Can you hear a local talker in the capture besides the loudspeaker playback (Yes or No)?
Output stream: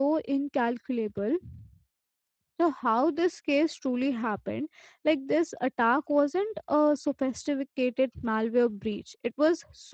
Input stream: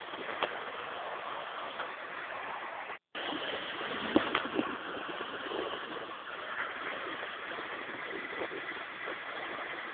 No